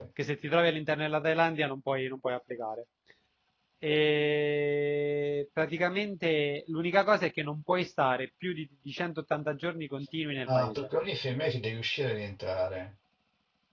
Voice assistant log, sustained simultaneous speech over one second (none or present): none